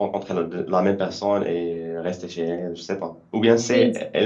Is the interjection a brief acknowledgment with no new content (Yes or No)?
Yes